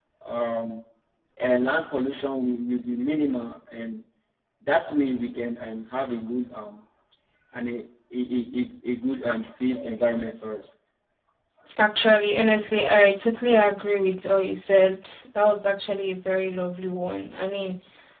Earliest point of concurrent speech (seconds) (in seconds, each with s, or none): none